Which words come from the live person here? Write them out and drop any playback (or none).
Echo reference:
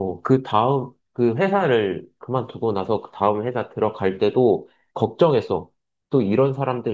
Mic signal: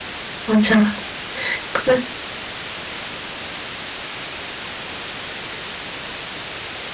맞아, 그래,